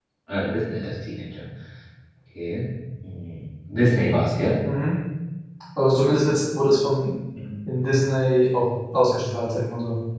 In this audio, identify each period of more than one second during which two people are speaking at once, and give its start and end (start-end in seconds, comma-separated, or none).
none